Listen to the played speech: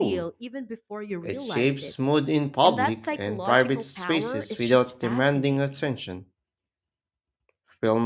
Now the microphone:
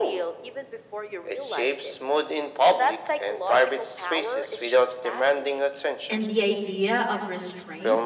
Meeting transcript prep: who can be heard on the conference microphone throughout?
both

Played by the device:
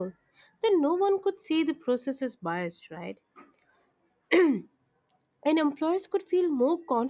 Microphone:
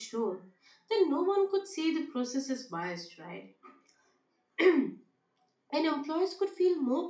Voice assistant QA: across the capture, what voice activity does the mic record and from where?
echo only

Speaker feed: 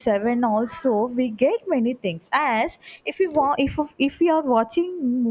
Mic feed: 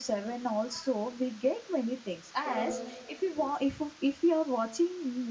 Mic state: both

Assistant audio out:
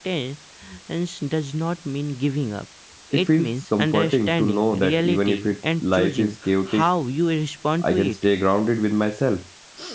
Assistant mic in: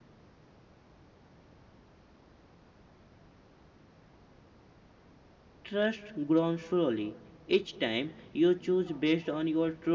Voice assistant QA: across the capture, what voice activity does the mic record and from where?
user only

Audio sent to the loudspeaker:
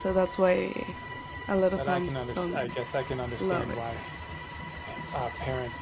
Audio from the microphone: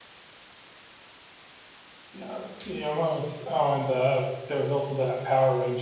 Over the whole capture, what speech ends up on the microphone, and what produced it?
user only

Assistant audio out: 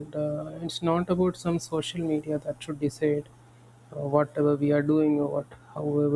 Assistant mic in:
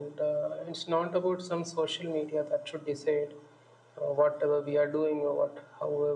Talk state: echo only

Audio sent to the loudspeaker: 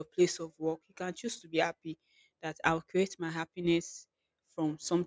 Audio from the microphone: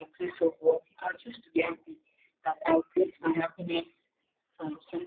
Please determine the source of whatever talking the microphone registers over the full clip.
echo only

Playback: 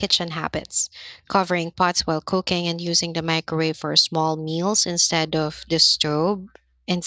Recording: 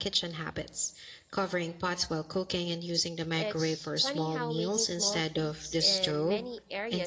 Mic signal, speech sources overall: both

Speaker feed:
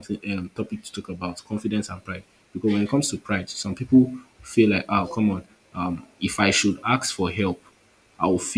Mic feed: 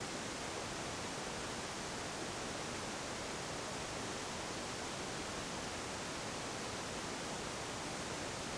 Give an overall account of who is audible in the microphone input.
neither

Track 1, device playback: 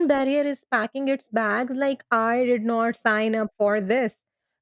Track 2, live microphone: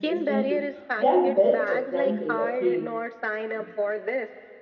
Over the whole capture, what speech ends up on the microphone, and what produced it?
both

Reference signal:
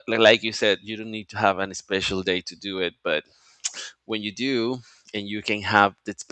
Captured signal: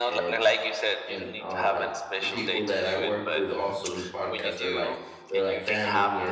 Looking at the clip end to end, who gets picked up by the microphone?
both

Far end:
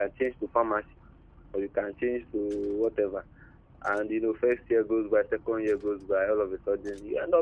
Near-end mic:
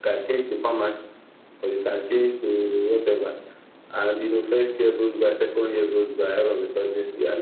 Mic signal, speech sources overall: echo only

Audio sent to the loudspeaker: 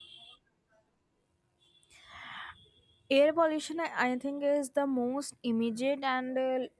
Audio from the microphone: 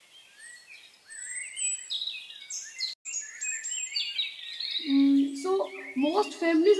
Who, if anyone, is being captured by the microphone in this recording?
user only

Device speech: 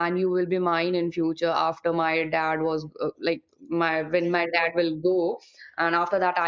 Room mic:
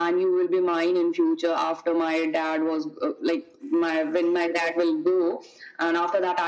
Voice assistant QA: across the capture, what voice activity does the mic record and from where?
echo only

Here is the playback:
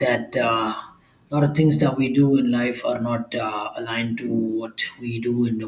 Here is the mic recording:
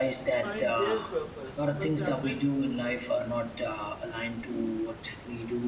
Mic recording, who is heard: both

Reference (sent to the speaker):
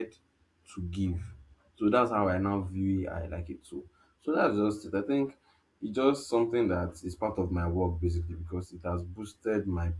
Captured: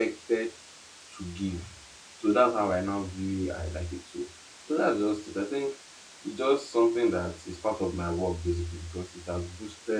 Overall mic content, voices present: echo only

